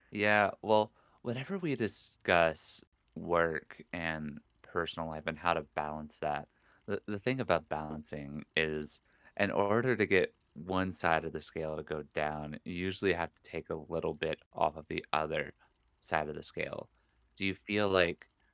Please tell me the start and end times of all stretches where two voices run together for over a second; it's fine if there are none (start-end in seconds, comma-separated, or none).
none